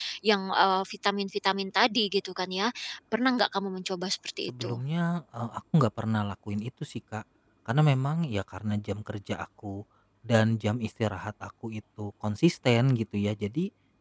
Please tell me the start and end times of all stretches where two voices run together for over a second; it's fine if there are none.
none

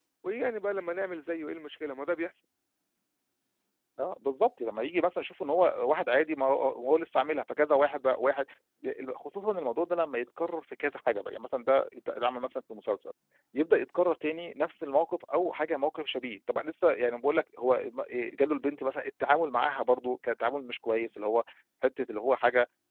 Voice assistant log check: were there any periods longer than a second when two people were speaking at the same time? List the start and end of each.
none

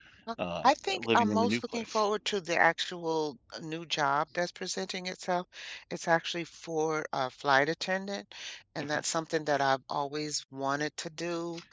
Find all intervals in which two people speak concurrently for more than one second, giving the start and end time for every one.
0.6-2.0

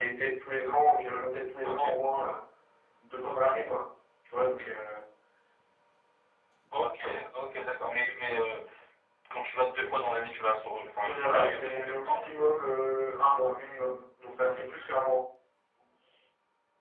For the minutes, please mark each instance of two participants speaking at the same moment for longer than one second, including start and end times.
11.0-12.3

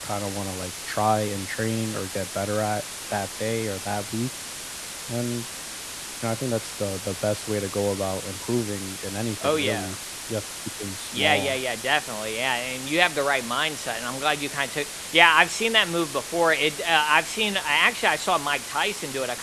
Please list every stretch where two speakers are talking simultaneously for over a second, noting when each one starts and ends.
none

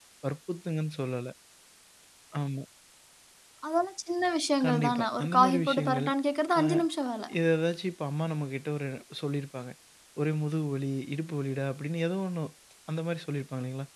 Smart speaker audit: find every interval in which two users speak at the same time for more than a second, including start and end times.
4.7-6.1

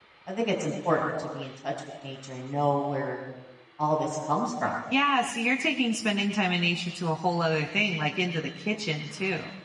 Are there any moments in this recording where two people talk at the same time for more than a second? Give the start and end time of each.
none

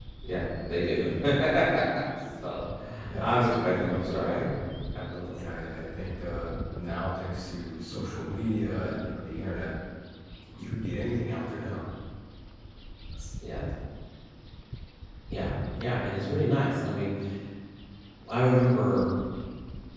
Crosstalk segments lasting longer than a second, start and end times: 3.2-4.5

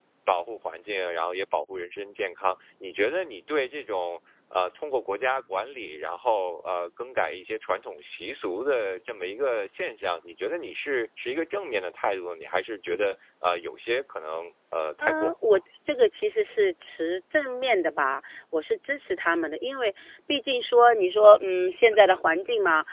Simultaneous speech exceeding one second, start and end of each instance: none

